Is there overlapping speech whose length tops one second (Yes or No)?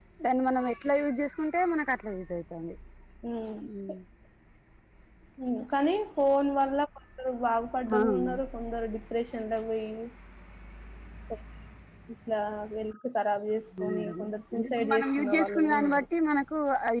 Yes